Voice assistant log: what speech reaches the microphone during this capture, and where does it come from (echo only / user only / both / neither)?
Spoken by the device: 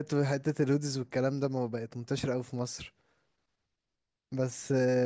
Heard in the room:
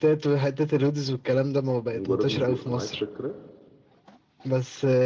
both